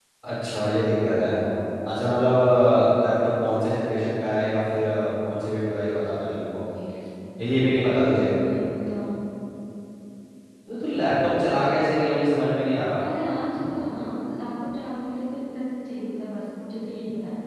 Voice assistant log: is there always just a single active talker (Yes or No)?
Yes